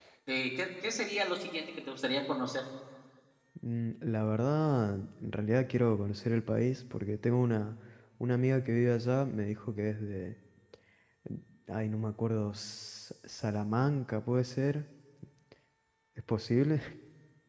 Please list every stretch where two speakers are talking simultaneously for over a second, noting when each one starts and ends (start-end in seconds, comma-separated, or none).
none